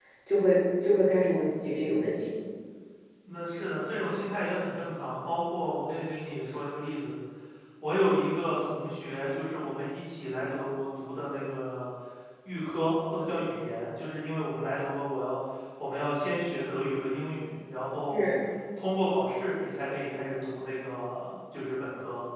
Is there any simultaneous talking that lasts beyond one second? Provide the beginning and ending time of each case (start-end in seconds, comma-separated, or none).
none